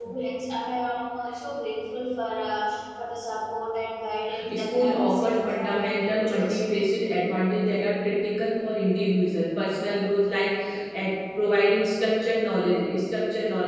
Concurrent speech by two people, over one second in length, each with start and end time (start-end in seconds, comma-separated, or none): 4.5-6.6